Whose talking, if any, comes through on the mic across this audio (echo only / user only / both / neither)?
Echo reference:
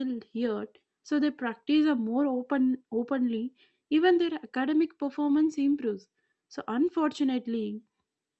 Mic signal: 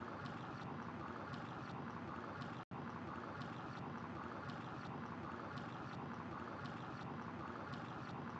neither